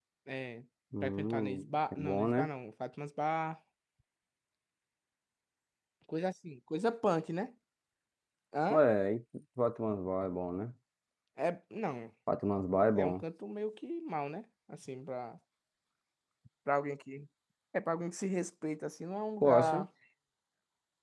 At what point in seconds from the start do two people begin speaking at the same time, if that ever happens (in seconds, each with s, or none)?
1.0 s